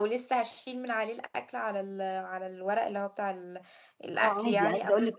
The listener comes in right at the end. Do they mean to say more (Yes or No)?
Yes